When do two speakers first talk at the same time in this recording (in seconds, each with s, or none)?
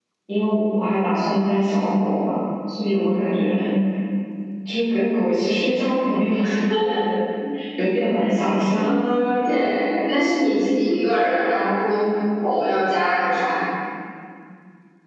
none